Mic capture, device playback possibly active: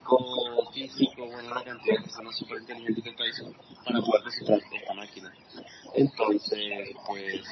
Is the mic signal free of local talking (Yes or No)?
Yes